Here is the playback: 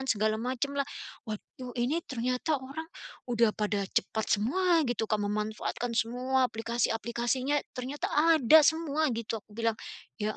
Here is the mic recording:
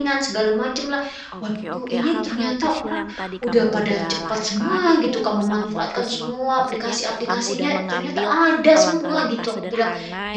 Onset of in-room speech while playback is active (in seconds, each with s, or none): 1.3 s